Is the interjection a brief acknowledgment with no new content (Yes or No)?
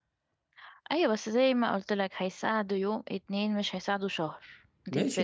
No